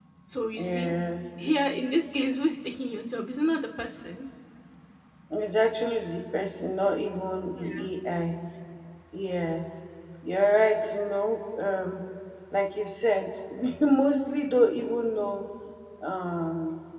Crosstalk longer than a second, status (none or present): none